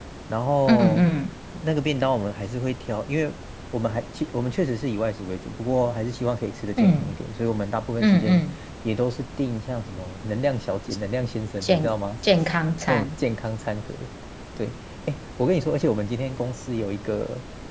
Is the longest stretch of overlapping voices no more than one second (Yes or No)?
Yes